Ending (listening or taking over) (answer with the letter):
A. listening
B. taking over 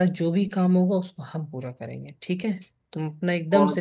B